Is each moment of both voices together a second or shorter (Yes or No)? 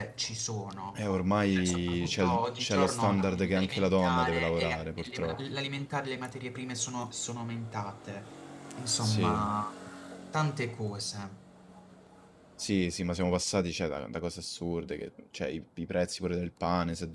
No